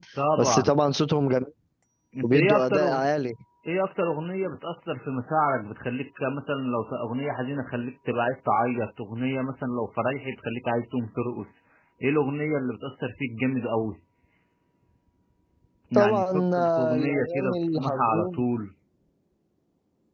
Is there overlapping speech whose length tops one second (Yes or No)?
Yes